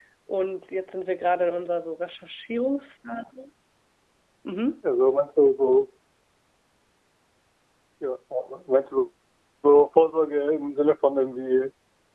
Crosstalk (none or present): none